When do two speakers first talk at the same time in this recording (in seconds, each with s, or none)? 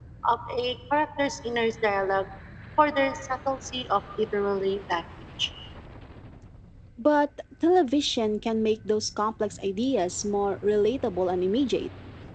none